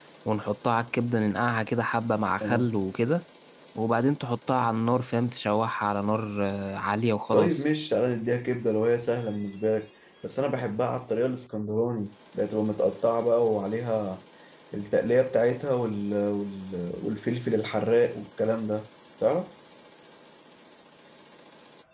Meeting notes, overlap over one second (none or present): none